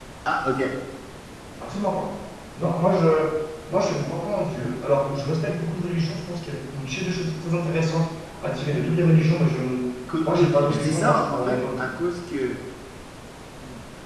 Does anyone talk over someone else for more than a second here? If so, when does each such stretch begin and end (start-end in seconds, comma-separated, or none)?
10.2-11.9